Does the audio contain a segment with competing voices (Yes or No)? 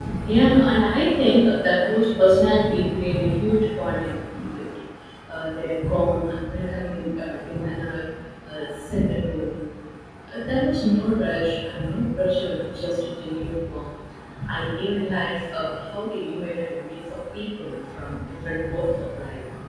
No